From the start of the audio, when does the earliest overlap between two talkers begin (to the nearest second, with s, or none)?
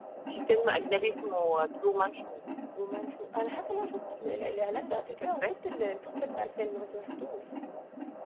none